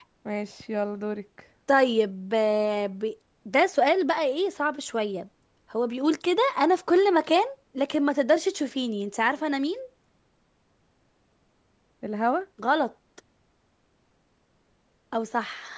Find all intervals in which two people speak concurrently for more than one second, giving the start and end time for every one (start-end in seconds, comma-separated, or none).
none